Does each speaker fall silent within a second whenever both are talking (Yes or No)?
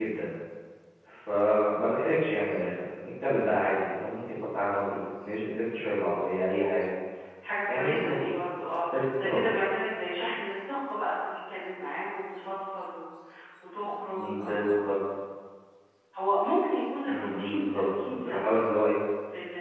No